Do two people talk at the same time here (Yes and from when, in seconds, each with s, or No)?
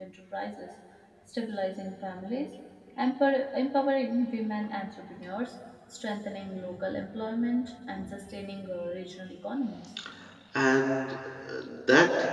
No